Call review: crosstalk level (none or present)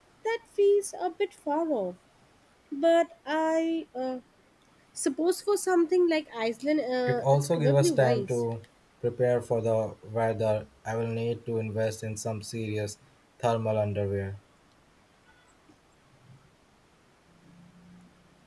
present